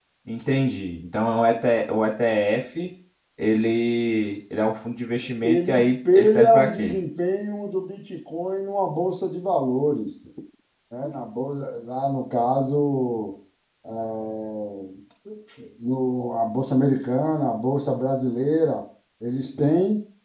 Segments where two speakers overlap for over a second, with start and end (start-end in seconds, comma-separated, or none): 5.4-7.0